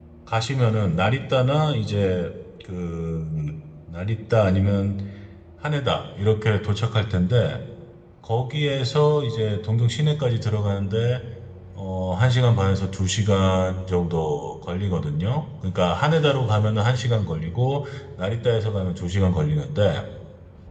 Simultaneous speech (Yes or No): No